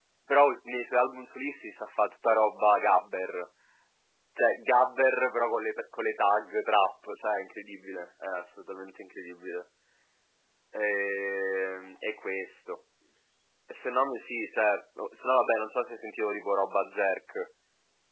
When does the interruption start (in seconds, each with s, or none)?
none